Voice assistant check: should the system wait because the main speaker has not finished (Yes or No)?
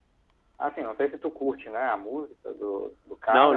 No